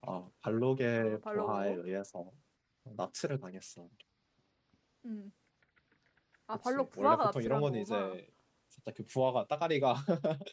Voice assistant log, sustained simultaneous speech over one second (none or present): present